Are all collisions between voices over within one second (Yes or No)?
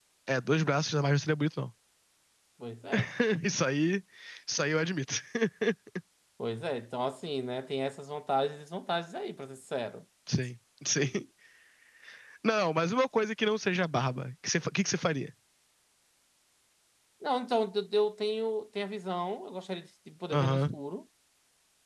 Yes